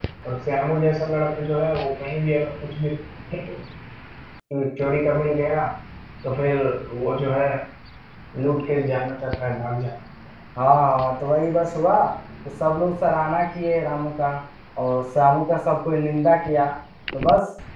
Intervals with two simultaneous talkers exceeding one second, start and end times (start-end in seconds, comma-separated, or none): none